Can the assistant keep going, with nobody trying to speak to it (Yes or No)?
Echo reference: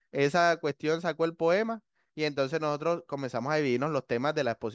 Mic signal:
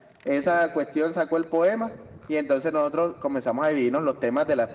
Yes